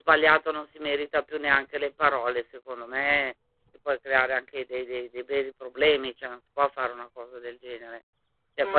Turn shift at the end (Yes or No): No